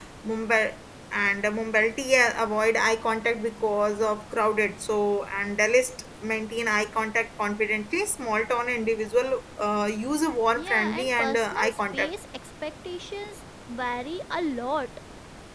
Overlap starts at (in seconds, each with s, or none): 10.6 s